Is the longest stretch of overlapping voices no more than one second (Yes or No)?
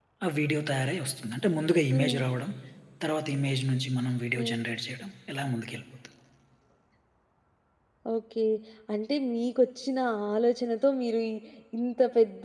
Yes